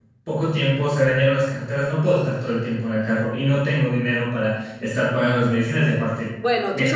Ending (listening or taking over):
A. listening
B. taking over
B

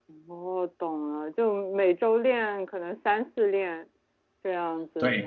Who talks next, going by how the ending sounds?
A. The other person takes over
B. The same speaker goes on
A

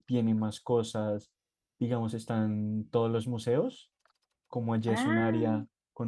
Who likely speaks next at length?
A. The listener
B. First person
B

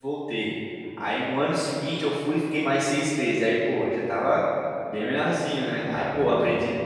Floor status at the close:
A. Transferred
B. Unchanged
B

